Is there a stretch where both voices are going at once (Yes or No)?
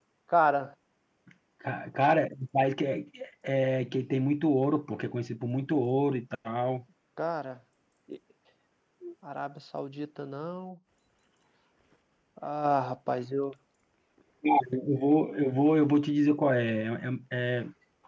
No